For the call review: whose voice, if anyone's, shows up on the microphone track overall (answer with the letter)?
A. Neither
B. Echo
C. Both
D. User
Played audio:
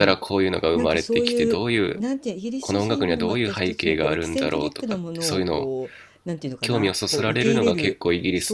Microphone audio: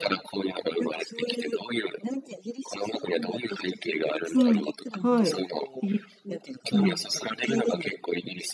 C